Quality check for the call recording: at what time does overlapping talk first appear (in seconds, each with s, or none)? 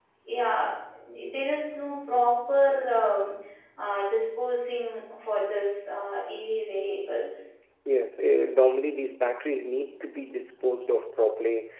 none